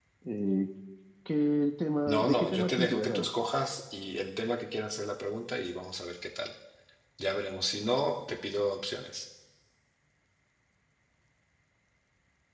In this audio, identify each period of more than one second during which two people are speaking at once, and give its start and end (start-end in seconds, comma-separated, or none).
2.1-3.3